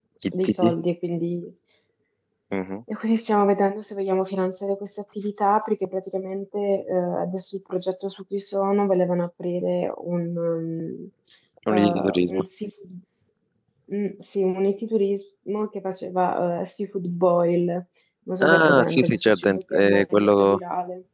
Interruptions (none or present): present